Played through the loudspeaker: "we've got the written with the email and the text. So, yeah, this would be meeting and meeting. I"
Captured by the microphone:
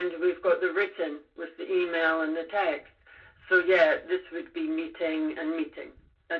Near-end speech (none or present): none